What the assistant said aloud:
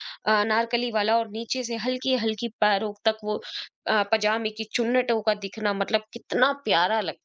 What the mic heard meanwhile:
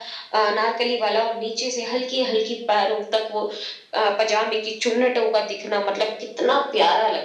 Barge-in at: none

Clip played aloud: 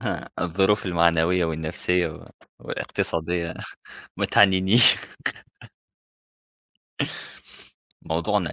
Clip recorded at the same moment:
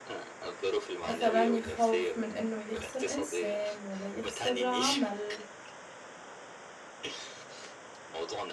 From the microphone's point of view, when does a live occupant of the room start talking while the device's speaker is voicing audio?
1 s

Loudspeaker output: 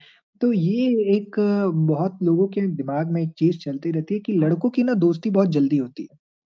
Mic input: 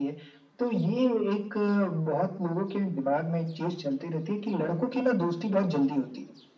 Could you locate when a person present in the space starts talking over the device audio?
none

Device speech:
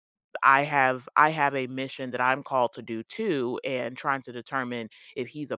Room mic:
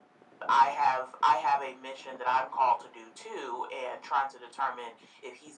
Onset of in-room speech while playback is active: none

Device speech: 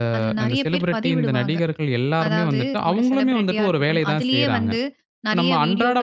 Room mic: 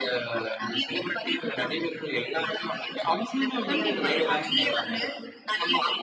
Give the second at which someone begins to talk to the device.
4 s

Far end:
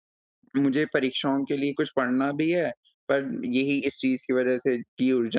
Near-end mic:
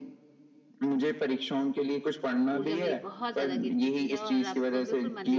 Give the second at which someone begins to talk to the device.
3 s

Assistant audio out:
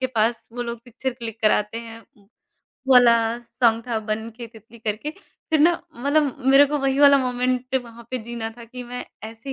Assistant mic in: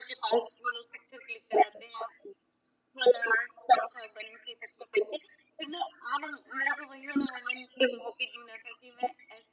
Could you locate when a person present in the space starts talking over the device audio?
none

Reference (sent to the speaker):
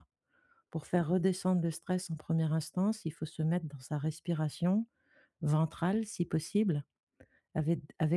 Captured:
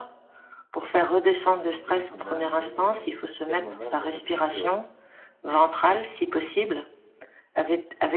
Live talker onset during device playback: 1 s

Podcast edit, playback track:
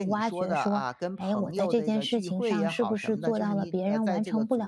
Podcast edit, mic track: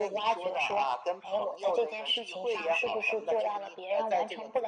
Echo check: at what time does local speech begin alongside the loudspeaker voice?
none

